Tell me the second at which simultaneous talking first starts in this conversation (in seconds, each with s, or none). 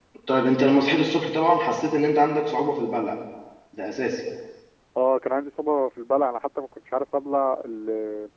none